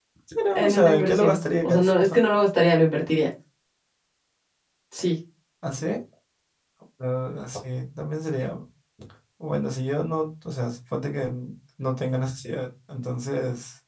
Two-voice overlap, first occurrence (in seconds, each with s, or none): 0.5 s